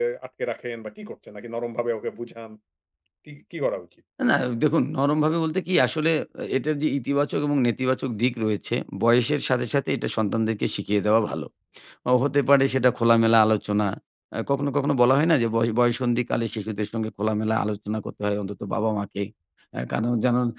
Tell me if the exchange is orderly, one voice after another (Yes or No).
Yes